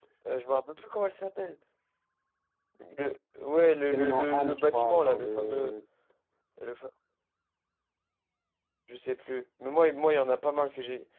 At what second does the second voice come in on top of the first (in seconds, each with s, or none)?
3.8 s